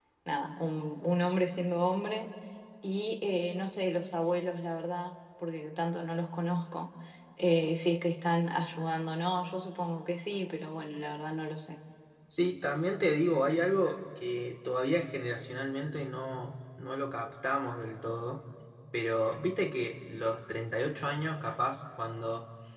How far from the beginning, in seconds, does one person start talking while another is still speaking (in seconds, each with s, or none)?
none